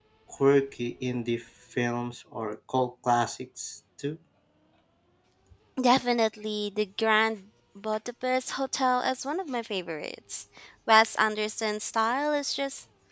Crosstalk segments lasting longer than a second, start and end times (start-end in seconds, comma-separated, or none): none